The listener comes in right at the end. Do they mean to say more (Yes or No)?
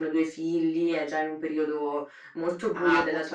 Yes